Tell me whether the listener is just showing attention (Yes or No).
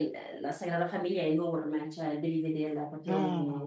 Yes